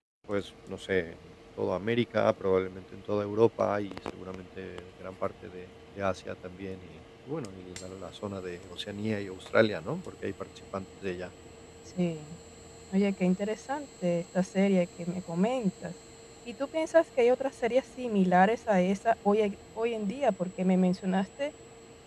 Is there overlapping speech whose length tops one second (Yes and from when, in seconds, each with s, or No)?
No